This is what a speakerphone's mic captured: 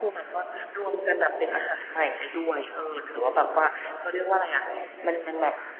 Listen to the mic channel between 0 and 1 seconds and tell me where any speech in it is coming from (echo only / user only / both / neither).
echo only